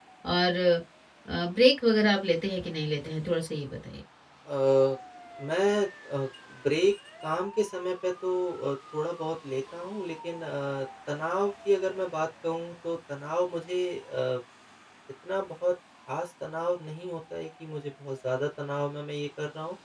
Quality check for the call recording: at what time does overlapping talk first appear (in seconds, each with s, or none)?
none